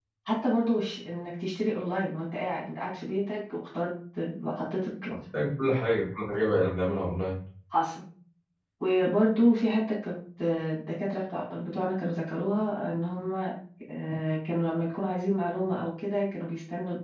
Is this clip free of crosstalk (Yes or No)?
Yes